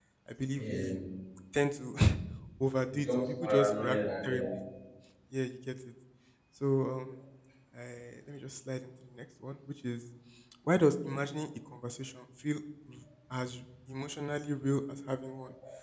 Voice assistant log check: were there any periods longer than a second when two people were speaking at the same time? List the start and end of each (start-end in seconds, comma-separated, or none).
2.9-4.4